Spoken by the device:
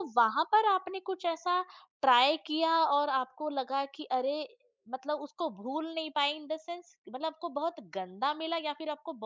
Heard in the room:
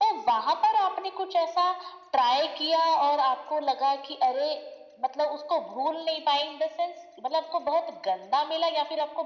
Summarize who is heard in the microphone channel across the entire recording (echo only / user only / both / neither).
echo only